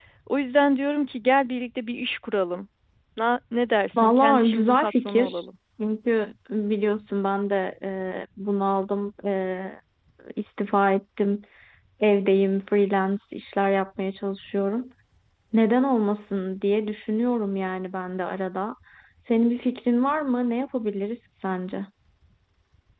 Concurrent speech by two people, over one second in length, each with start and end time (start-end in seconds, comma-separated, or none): 4.0-5.5